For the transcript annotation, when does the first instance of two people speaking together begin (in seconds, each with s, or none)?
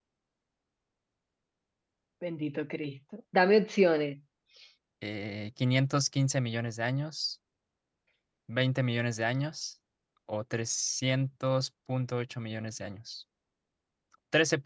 none